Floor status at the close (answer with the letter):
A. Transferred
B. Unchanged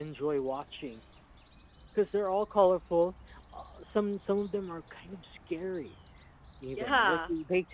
B